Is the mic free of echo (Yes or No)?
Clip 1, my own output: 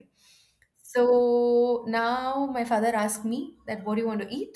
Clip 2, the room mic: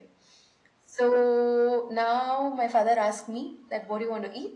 No